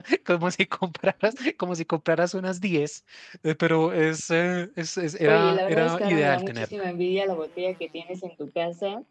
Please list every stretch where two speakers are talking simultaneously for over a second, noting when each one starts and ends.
5.3-6.7

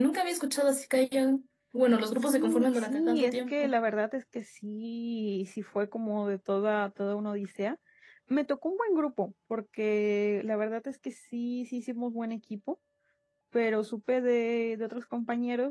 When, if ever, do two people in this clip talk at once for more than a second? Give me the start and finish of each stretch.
2.2-3.7

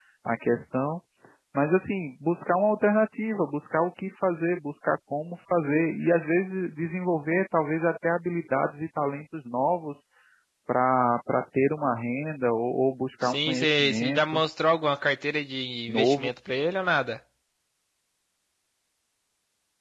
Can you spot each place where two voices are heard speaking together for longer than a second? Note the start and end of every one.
13.2-14.4

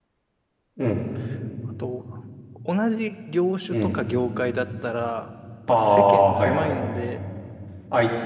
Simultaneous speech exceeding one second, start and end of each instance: 5.7-7.0

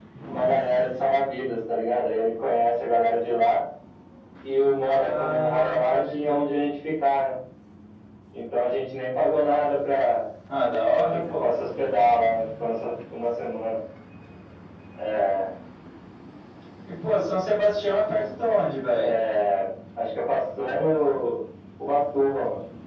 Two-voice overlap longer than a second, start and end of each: 4.8-6.4

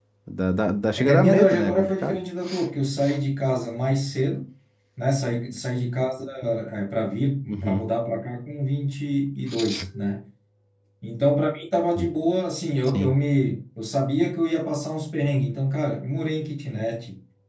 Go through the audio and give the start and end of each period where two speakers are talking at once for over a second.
1.0-2.2

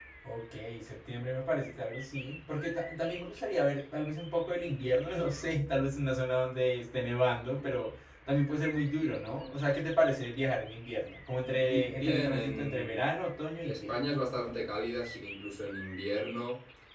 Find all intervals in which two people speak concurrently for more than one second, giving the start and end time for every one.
11.5-13.0

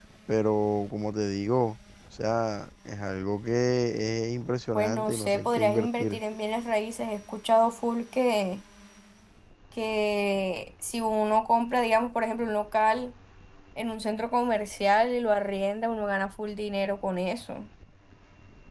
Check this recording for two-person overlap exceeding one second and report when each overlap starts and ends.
4.8-6.2

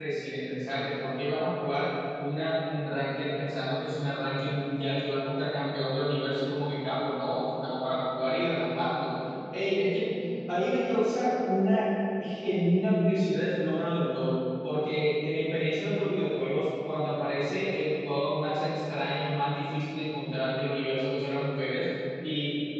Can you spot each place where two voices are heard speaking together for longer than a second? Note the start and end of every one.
none

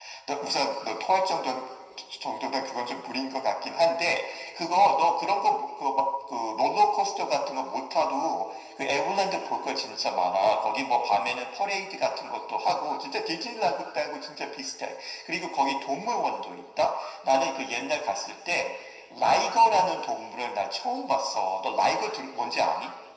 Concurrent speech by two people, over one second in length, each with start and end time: none

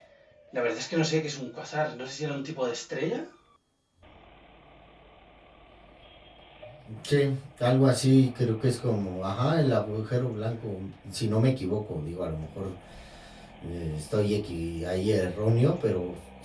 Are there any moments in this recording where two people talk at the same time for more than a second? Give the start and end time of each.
none

